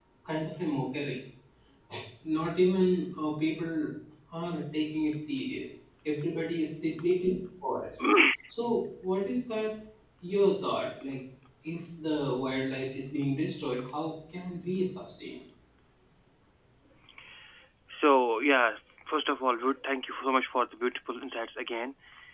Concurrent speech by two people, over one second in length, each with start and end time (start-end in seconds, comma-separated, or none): none